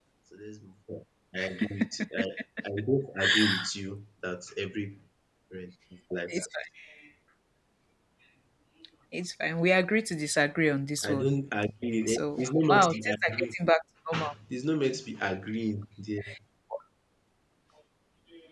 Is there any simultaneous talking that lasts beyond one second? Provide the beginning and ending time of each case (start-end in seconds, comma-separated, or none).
12.1-13.4